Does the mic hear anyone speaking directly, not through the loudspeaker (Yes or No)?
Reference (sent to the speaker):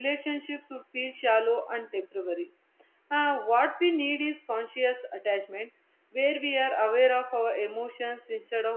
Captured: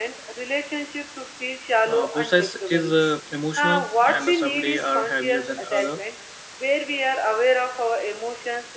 Yes